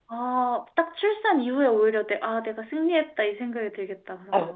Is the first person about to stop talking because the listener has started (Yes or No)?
Yes